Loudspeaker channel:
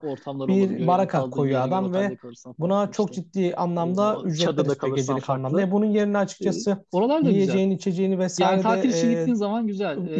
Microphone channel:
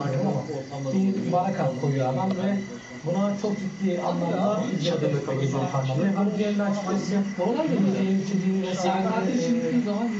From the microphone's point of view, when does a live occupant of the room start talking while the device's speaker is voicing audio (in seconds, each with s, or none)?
4.0 s